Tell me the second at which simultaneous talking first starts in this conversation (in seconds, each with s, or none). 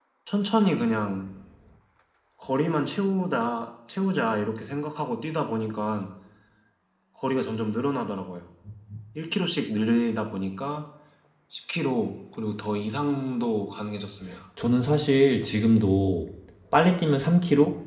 none